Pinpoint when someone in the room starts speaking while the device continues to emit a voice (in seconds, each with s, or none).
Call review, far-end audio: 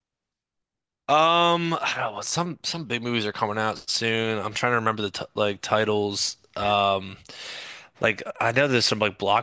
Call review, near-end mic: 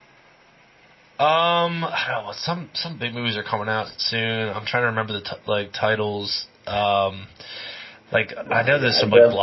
8.4 s